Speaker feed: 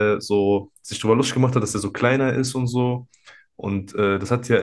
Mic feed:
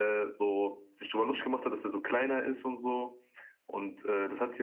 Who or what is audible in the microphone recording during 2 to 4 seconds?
echo only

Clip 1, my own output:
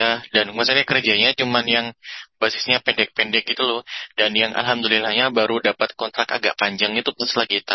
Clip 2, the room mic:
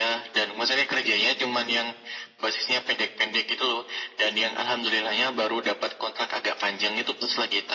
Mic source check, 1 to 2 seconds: echo only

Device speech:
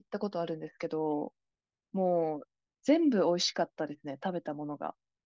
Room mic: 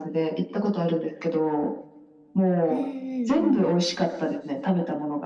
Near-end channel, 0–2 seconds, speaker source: echo only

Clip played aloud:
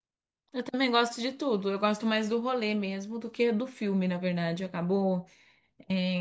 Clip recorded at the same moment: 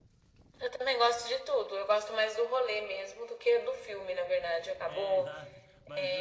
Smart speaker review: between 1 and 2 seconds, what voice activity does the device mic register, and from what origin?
echo only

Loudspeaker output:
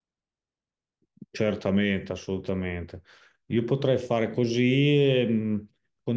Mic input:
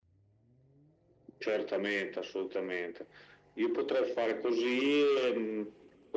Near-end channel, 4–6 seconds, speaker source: echo only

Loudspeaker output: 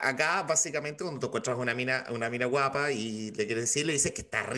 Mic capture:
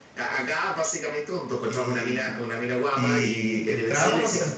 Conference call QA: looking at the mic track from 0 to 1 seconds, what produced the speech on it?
echo only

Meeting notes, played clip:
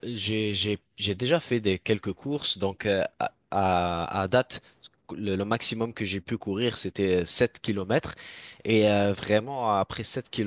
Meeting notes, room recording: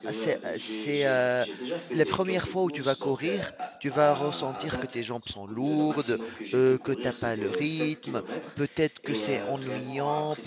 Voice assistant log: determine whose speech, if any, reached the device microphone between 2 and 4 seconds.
both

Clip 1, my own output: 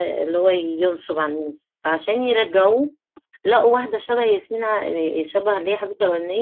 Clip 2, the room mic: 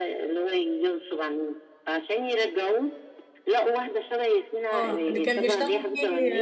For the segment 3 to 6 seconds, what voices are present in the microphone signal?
both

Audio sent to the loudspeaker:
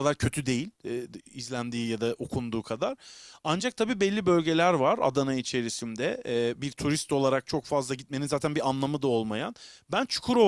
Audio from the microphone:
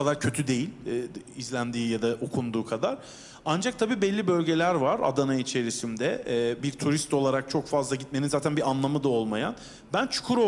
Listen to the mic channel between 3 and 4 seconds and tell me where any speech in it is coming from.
echo only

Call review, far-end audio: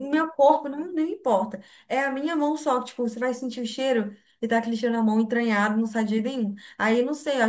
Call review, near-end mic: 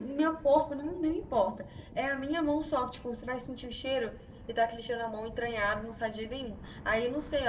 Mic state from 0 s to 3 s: echo only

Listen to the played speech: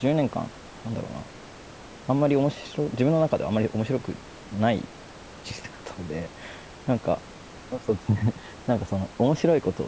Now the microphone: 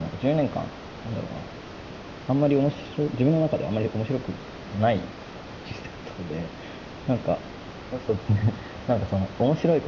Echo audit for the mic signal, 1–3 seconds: echo only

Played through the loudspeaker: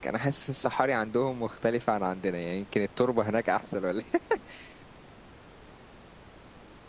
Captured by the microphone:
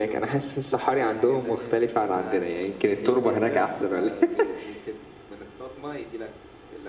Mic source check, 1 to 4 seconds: both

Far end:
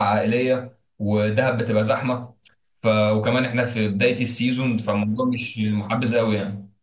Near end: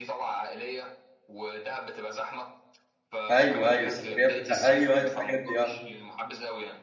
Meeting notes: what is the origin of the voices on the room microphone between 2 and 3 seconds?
echo only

